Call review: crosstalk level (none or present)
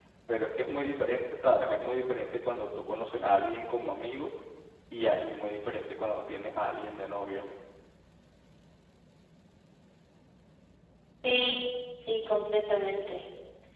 none